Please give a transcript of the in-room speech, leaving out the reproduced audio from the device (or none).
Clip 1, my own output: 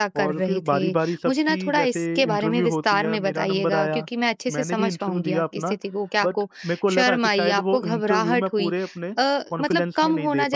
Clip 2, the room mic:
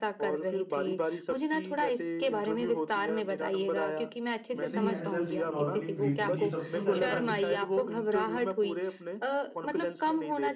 कुछ नहीं मैंने जस्ट नॉर्मली ग्रीटिंग की सबको जैसे हम